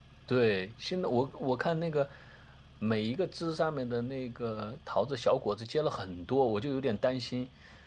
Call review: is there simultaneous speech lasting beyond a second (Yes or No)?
No